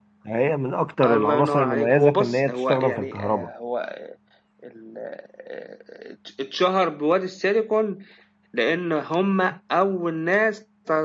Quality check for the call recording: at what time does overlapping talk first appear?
1.0 s

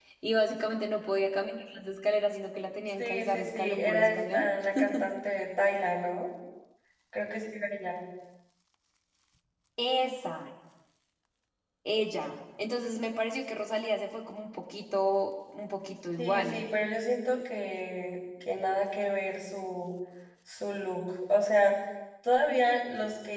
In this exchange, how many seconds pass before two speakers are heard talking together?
3.0 s

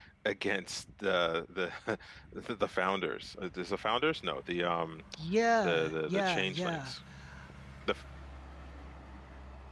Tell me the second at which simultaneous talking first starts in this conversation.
5.6 s

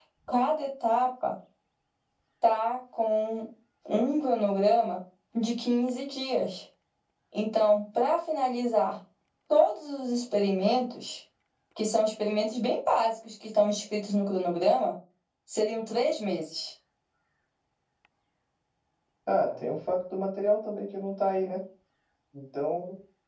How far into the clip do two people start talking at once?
none

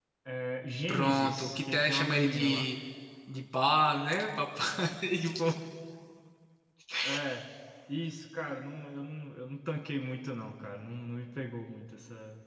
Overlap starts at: 0.9 s

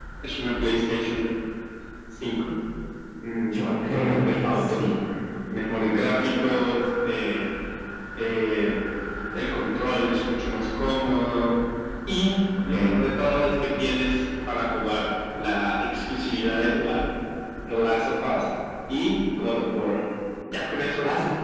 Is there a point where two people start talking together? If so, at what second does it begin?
3.5 s

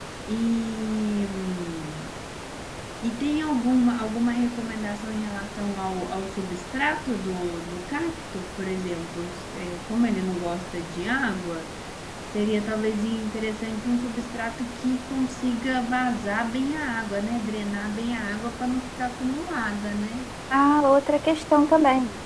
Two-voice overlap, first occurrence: none

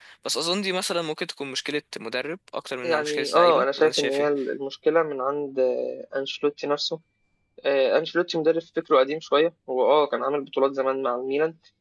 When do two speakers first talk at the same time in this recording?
2.8 s

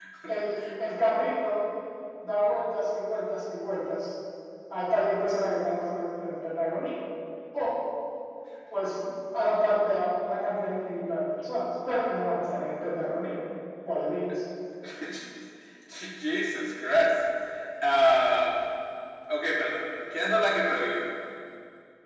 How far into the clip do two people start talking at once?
none

